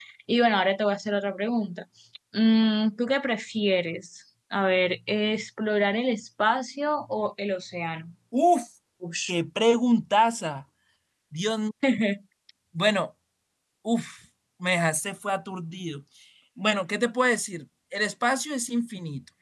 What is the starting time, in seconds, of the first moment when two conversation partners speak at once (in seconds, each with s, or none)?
none